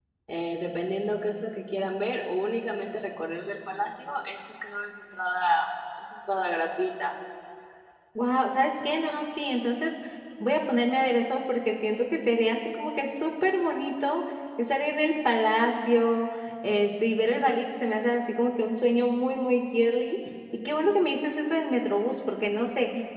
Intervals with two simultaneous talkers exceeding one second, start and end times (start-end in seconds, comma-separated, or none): none